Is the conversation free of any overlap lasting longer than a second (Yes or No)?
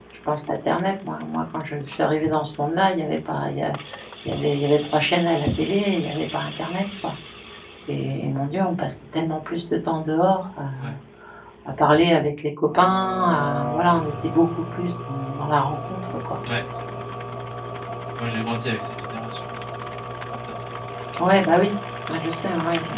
Yes